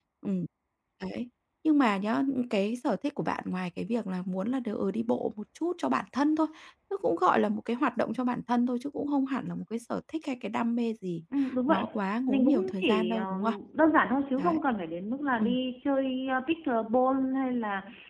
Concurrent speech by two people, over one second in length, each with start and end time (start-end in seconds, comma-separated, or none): 12.3-13.5